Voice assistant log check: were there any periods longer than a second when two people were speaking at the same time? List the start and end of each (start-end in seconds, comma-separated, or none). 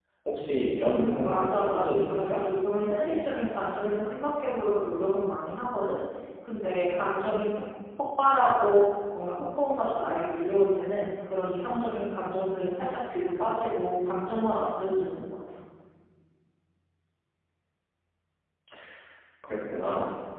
0.9-2.4